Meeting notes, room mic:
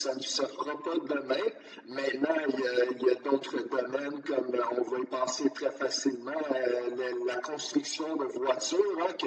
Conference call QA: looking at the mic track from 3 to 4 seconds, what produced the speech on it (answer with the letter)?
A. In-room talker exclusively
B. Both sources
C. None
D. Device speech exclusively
D